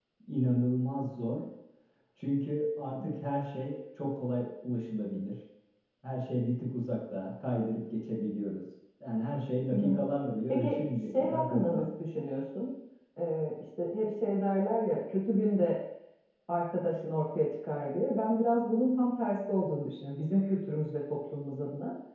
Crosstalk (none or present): present